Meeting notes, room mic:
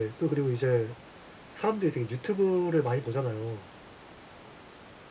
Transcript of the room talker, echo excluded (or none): none